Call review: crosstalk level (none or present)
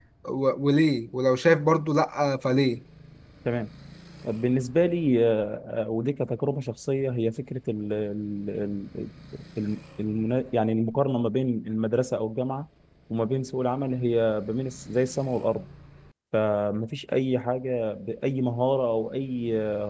none